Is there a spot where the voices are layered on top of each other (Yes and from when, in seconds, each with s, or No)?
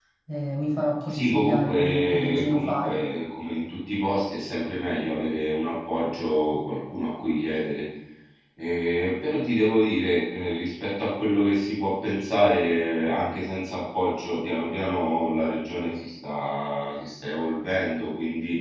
Yes, from 1.1 s